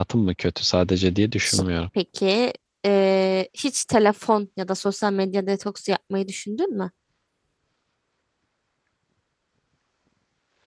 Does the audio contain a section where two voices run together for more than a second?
No

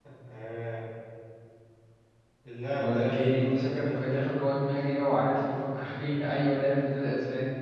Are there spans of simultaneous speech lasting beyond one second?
Yes, from 2.8 s

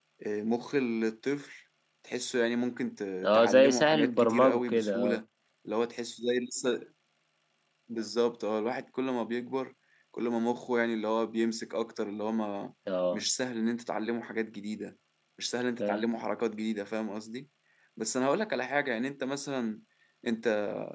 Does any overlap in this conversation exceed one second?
Yes, from 3.2 s

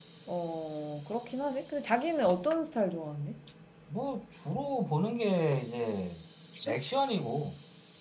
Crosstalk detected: No

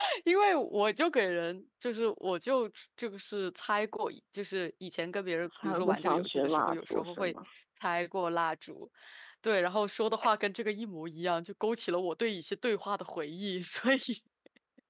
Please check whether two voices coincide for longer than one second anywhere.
Yes, from 5.4 s

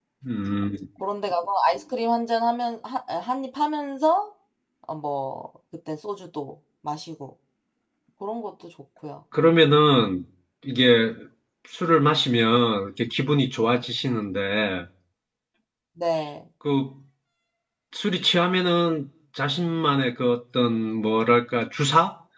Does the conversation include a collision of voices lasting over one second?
No

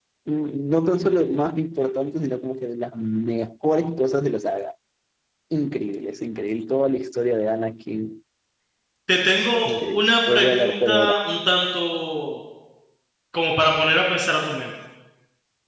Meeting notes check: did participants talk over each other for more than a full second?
Yes, from 9.7 s

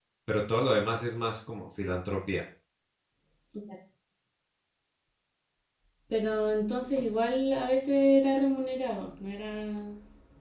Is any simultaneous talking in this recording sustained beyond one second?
No

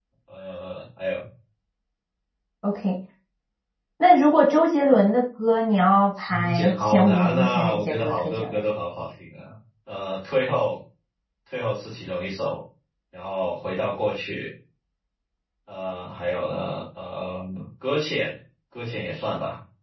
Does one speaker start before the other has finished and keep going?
Yes, from 6.2 s

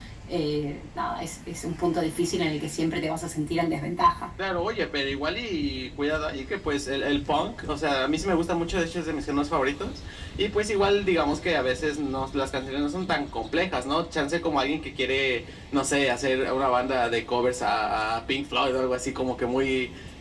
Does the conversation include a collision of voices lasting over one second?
No

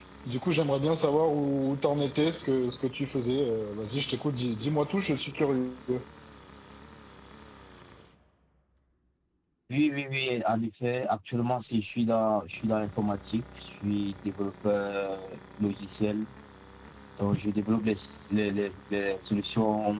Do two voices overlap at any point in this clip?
No

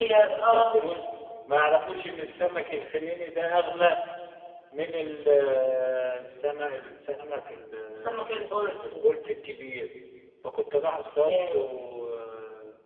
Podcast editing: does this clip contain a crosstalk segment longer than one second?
No

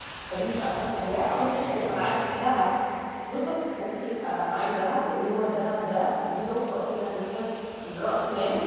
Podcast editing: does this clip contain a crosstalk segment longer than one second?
Yes, from 1.1 s

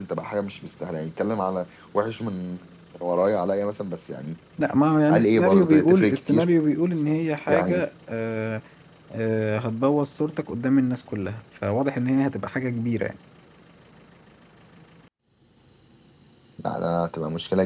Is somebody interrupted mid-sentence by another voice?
Yes, from 5.1 s

